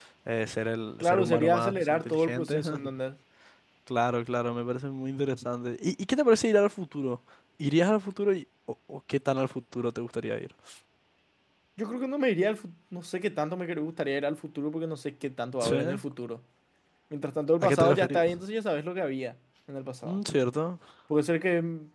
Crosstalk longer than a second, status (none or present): present